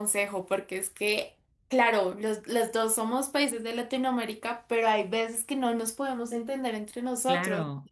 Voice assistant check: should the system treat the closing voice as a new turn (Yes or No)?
Yes